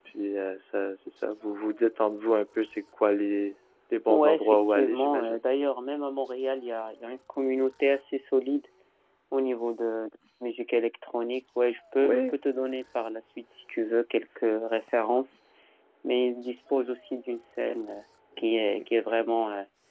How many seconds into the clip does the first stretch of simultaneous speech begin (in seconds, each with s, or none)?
4.1 s